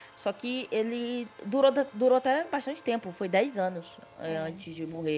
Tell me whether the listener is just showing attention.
Yes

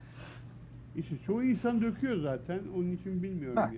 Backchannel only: Yes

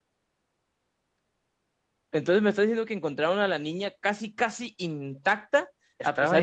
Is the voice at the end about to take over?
No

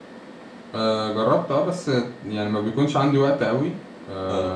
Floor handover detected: No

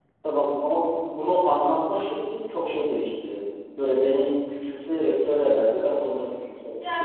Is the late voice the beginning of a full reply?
Yes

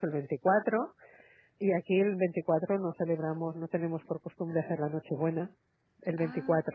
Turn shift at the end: No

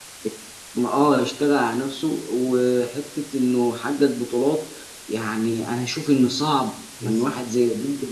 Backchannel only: Yes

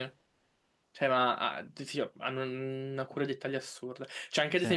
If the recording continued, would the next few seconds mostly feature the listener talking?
No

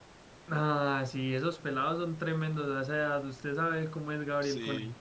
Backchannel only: No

